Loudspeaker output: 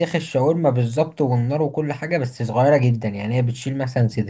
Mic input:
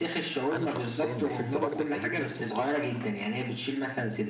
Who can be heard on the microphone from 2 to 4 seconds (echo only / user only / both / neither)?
both